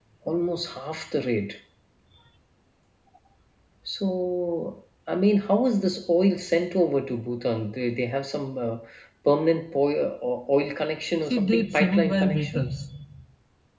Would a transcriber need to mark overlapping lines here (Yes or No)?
Yes